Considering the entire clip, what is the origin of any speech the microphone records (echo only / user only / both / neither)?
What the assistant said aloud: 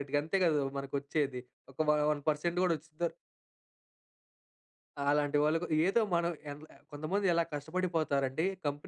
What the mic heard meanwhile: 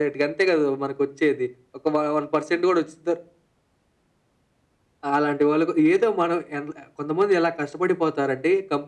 echo only